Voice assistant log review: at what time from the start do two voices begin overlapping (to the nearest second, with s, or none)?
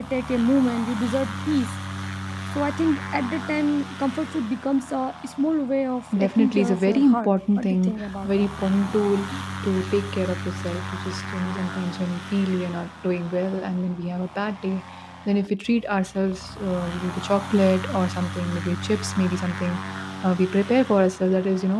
6 s